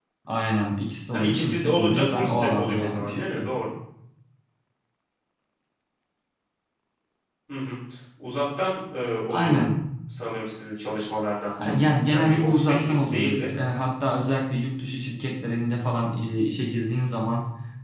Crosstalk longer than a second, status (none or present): present